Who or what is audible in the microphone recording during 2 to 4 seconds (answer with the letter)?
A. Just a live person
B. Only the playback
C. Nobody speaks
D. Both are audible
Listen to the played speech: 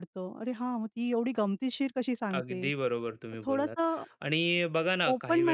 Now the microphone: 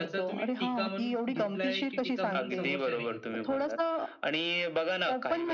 D